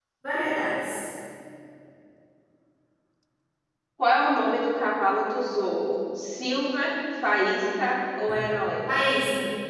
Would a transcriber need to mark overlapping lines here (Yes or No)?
No